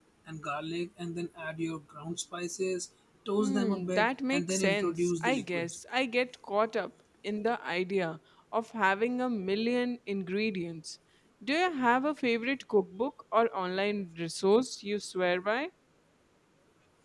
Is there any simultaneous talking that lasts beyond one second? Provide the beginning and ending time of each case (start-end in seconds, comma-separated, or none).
3.4-5.8